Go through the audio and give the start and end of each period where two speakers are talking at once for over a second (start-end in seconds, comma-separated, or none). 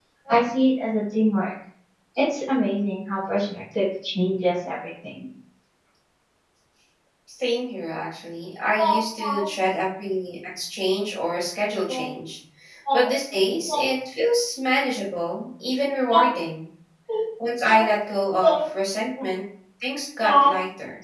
none